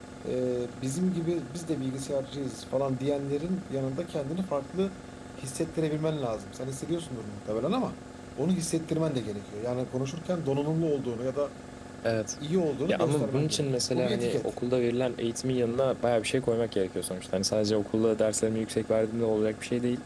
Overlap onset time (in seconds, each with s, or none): 12.9 s